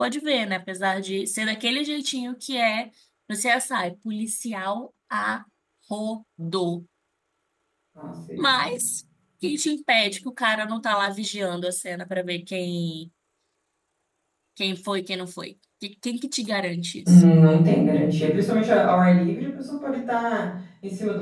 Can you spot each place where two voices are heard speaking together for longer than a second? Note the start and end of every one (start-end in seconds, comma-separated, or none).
none